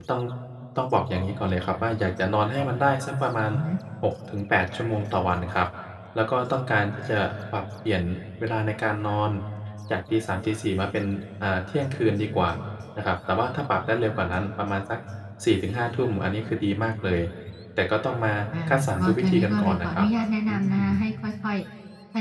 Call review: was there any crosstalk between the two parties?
Yes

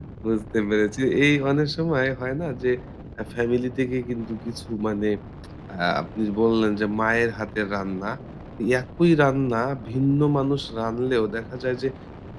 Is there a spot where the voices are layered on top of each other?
No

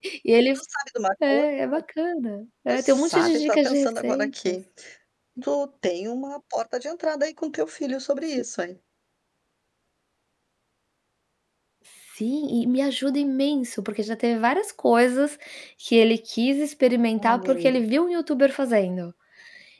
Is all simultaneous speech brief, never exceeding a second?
No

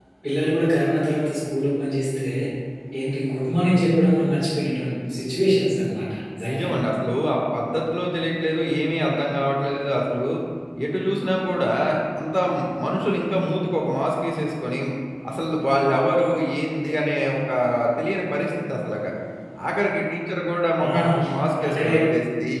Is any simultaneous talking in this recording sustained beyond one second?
No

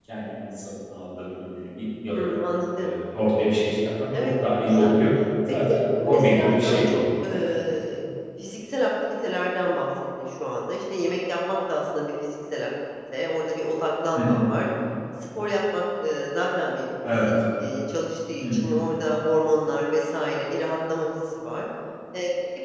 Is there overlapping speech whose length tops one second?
Yes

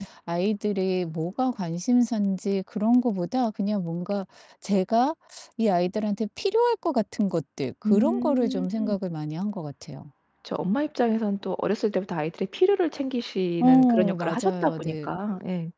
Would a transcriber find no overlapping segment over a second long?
No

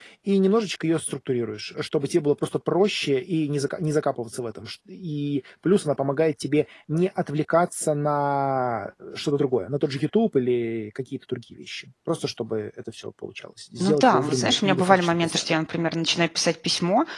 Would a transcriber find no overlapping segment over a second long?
No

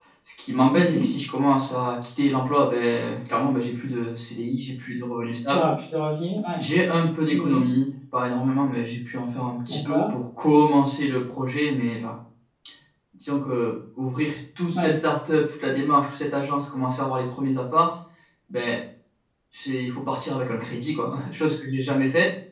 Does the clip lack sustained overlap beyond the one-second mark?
Yes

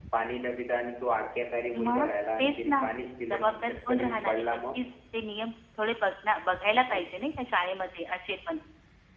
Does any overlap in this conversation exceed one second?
Yes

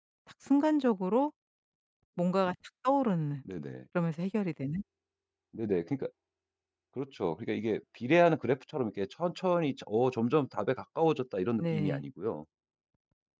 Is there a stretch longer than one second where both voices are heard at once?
No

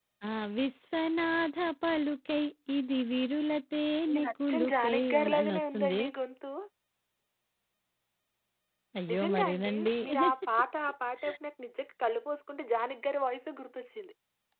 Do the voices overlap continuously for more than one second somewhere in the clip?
Yes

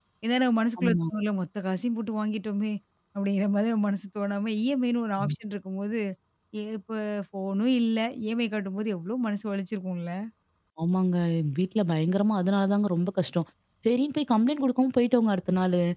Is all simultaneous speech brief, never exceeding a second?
Yes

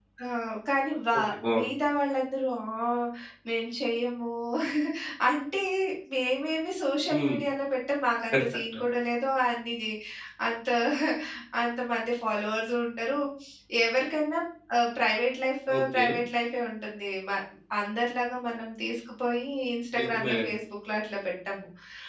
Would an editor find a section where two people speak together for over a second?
No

